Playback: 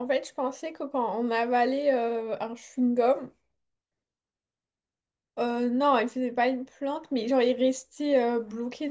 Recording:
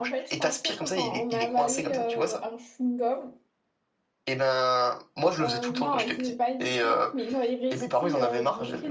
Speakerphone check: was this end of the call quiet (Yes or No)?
No